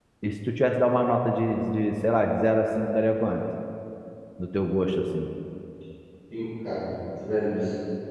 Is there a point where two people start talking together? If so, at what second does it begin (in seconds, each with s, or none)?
none